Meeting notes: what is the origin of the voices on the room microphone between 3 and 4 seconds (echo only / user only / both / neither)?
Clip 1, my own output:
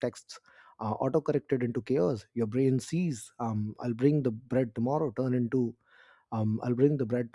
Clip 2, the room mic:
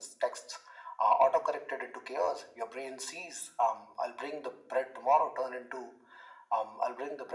echo only